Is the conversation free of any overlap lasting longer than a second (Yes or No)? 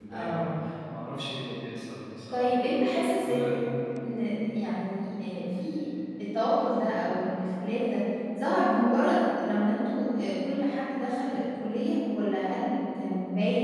Yes